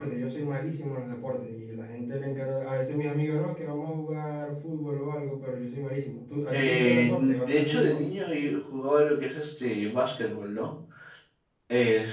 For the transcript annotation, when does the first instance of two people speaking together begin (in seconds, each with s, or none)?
6.5 s